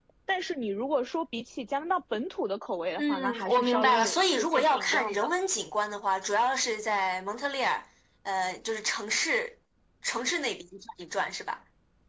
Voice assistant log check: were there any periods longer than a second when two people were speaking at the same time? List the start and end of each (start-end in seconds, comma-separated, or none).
3.0-5.3